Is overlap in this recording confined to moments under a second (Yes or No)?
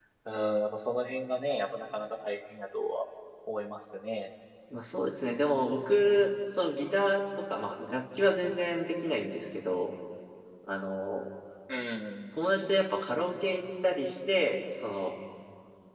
Yes